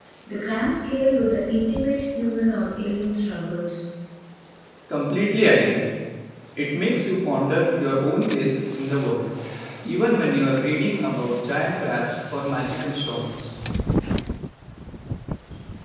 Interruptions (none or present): none